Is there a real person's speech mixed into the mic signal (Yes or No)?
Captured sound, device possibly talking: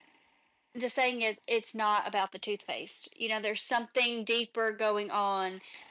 Yes